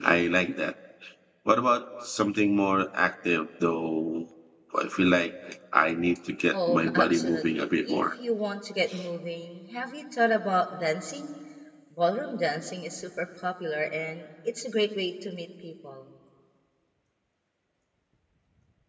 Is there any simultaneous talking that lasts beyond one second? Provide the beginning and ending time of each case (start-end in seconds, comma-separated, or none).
6.5-8.0